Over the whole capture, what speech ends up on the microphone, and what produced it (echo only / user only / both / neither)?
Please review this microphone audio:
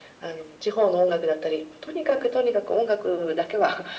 echo only